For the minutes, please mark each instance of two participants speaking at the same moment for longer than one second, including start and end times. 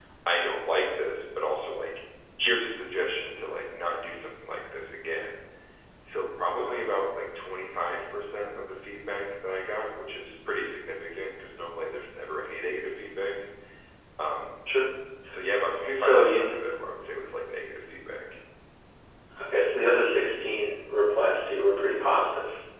none

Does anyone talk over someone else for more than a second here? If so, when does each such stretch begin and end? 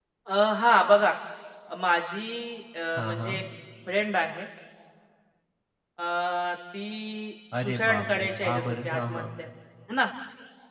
7.6-9.2

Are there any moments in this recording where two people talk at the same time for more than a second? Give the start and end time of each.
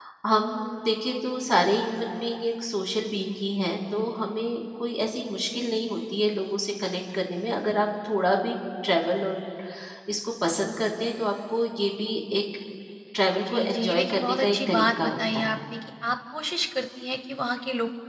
13.5-15.6

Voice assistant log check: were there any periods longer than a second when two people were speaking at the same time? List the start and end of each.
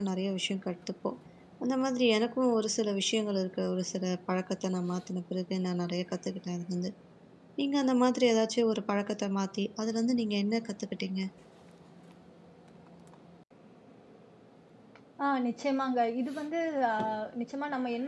none

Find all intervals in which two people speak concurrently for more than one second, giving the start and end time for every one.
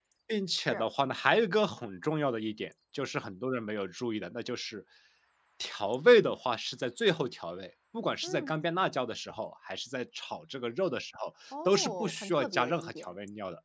11.7-13.1

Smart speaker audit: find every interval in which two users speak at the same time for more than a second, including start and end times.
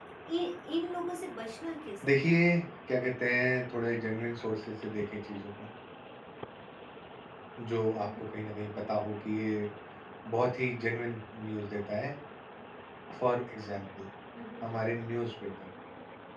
none

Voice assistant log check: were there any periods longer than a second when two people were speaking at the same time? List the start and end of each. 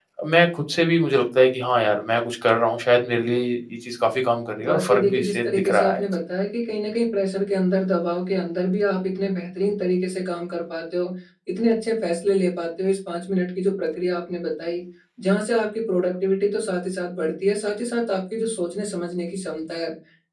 4.6-6.0

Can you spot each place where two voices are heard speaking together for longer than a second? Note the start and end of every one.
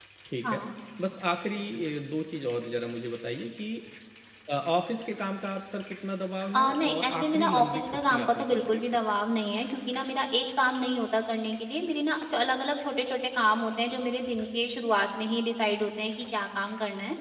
6.5-9.0

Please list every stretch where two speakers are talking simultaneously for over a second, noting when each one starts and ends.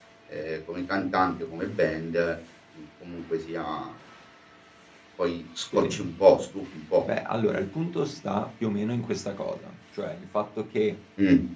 none

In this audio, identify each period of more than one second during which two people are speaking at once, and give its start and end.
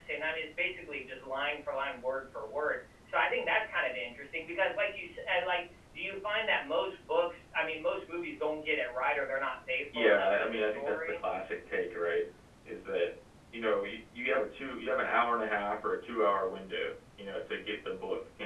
9.9-11.2

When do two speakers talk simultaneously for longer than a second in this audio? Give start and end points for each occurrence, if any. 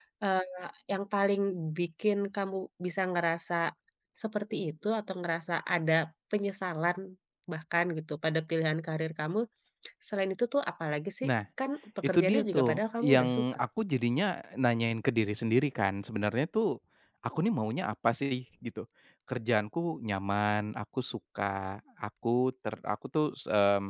12.0-13.6

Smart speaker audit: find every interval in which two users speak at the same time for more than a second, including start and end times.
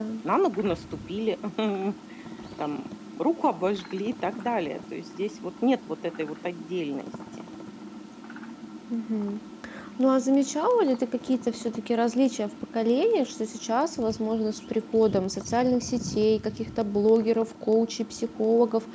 none

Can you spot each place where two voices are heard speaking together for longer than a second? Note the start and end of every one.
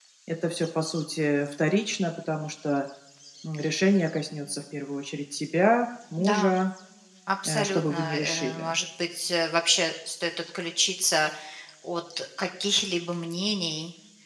7.5-8.7

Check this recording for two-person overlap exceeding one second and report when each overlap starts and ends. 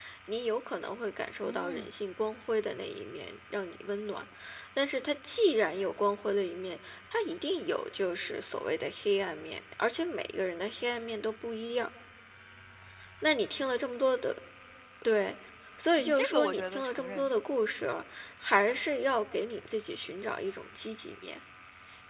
16.0-17.3

